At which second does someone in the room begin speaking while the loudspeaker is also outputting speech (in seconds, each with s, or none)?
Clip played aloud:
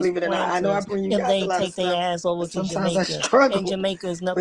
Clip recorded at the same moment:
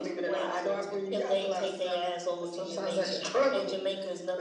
none